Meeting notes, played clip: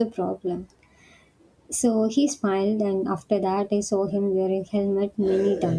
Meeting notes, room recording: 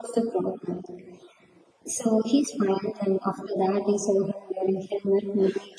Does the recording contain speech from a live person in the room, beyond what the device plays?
No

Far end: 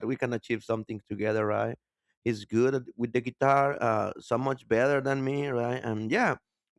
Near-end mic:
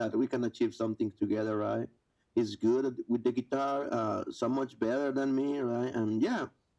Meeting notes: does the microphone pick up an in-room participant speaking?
No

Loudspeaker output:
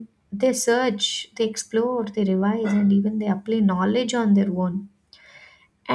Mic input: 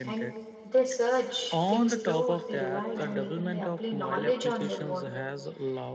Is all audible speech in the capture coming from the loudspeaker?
No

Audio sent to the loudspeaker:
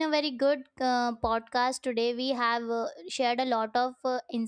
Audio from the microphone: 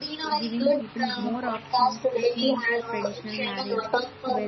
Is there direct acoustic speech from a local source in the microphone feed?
Yes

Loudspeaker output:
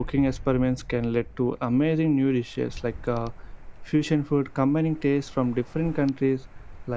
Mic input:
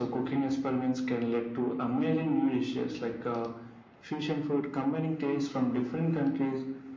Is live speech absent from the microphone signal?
Yes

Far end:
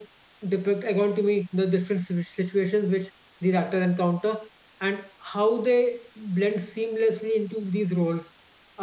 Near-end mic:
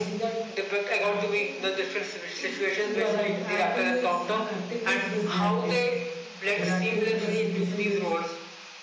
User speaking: Yes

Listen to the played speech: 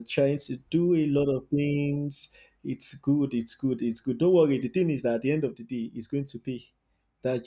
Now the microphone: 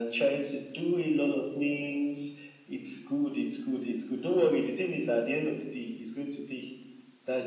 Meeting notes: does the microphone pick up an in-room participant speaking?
No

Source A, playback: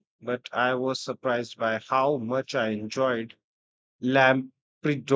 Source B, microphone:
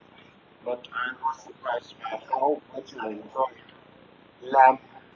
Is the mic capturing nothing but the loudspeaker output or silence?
Yes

